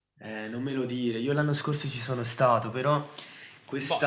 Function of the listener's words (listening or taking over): listening